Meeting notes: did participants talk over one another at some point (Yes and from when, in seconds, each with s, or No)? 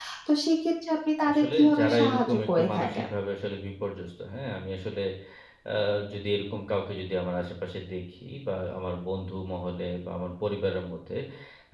Yes, from 1.3 s